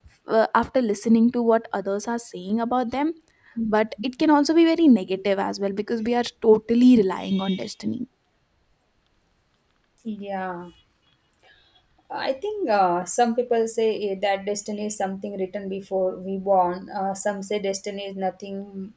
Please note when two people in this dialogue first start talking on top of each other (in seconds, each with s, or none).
none